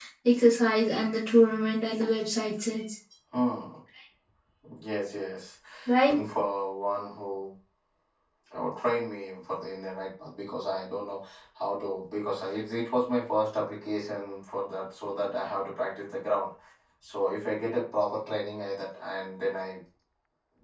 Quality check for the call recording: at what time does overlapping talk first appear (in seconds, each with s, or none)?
none